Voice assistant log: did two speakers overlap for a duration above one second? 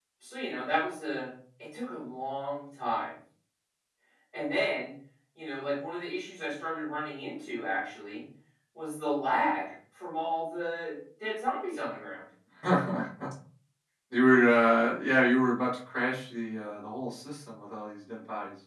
No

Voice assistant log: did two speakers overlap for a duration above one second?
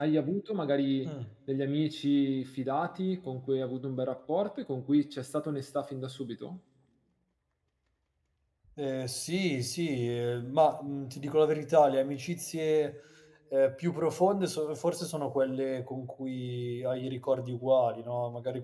No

